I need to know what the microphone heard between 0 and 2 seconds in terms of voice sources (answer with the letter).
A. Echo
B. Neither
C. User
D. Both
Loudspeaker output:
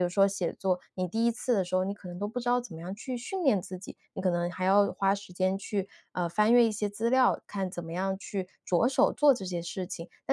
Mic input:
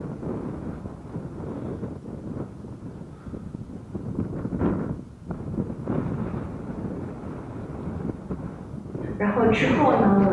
B